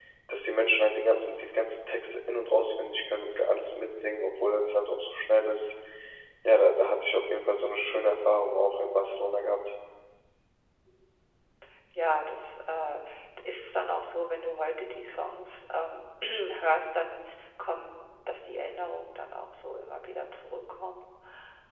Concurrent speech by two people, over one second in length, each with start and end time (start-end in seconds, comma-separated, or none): none